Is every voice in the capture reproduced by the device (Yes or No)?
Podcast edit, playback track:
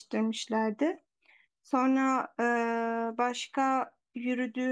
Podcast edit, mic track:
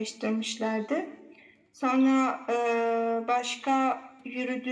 Yes